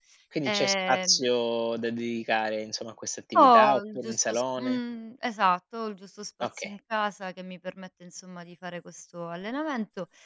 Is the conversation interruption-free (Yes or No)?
No